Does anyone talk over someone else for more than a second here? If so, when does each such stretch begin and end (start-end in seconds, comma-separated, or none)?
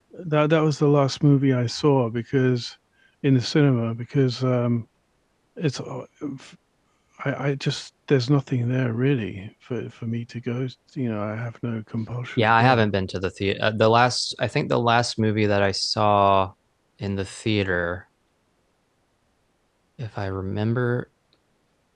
none